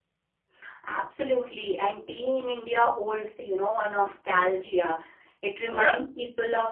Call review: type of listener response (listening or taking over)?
listening